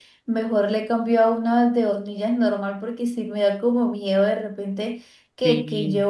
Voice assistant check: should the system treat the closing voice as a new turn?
No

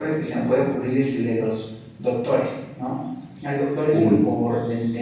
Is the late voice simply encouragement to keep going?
Yes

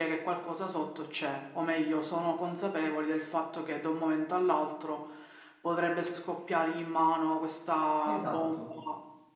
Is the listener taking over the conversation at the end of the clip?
No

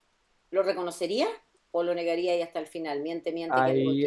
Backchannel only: No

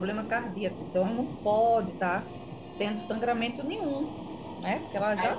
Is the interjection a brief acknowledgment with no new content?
No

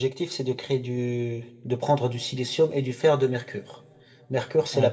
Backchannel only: Yes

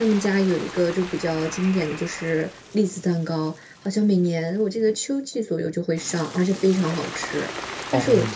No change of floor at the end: Yes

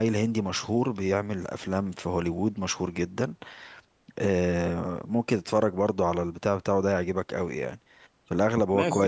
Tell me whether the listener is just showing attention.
No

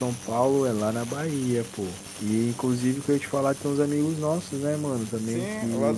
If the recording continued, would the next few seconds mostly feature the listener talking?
Yes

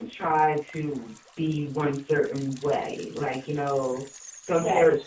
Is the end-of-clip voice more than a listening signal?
No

